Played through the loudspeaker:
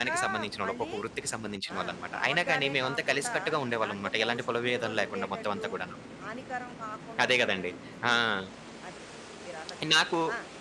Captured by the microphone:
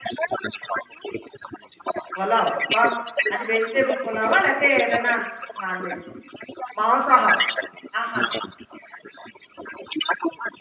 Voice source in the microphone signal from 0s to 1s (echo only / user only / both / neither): echo only